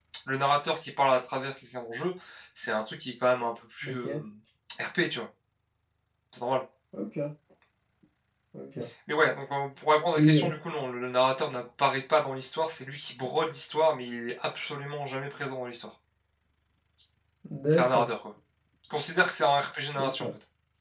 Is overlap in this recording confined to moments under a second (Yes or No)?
Yes